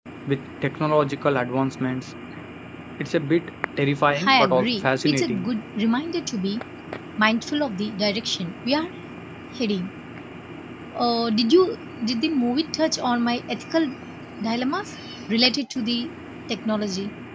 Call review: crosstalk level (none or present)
present